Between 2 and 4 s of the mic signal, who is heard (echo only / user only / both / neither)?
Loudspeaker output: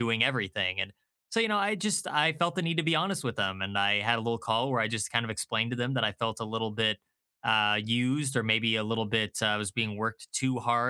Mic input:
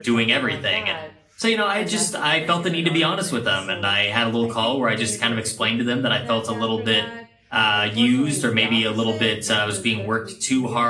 both